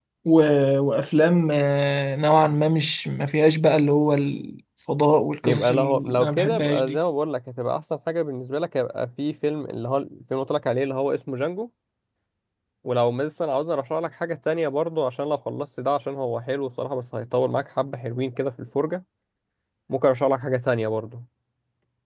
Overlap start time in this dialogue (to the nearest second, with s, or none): 5 s